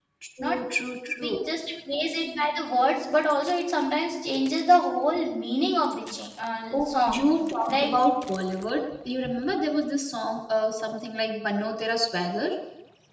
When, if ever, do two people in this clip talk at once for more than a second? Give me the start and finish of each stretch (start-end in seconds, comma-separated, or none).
none